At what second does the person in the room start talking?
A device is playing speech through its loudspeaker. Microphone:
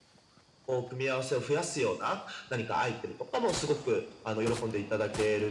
none

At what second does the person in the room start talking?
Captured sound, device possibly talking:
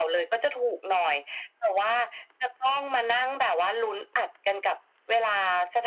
none

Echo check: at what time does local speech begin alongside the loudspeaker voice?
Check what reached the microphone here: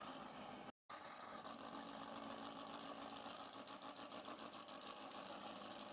none

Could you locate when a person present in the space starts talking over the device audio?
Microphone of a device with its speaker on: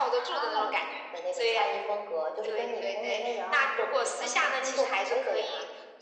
none

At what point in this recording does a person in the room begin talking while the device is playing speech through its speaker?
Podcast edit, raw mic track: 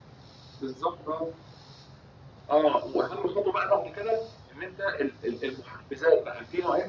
none

